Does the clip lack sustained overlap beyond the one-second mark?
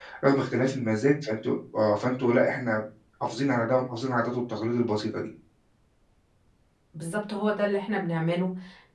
Yes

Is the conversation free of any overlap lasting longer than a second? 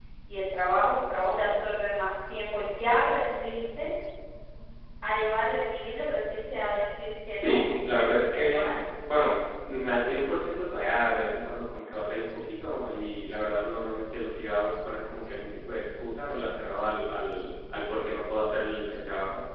No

